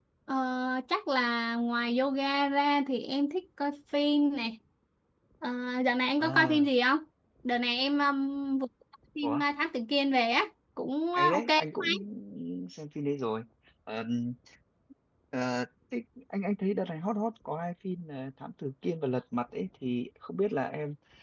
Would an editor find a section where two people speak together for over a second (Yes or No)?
No